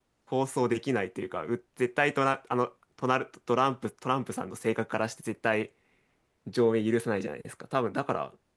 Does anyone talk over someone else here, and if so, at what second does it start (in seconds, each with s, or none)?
none